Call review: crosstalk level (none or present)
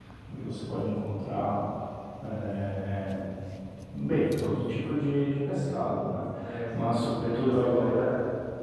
present